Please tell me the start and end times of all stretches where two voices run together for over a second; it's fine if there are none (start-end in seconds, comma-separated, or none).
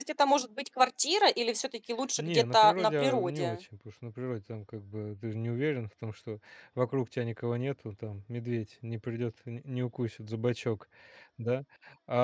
2.2-3.6